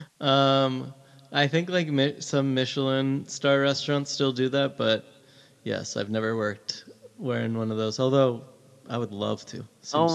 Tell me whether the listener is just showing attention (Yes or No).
No